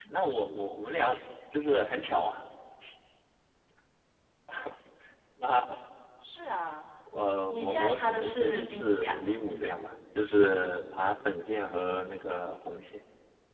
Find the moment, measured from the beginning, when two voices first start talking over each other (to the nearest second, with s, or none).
8 s